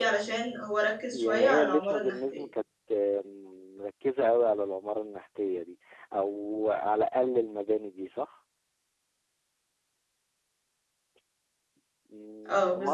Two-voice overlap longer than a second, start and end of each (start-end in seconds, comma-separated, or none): 1.1-2.4